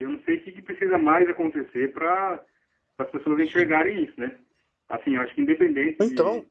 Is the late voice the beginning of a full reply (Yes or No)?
No